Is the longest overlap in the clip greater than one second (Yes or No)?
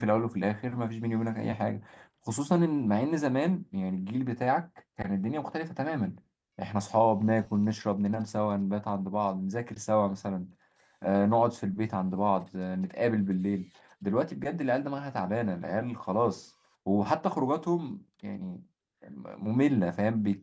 No